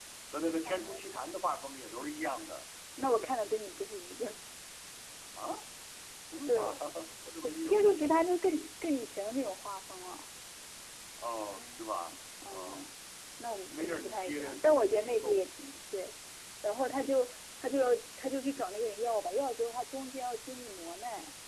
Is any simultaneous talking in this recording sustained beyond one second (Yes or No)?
Yes